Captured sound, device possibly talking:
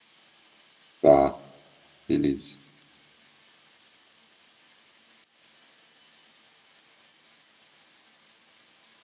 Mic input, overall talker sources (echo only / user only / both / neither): user only